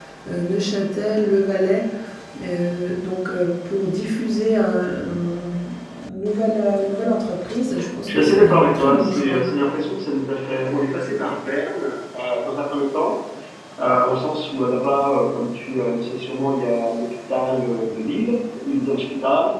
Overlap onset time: 8.1 s

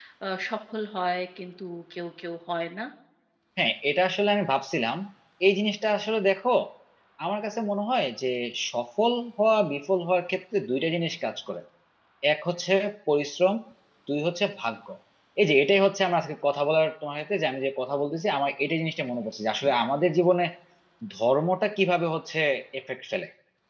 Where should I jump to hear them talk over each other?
none

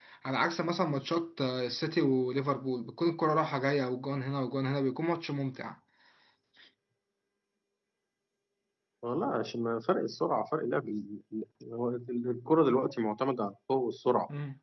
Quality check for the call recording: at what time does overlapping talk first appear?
none

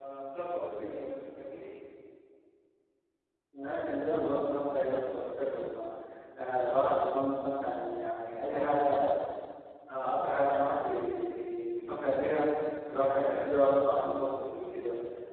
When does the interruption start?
none

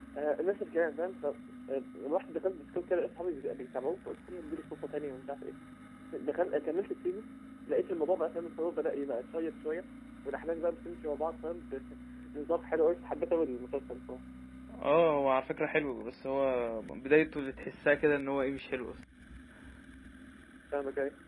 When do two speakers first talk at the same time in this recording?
none

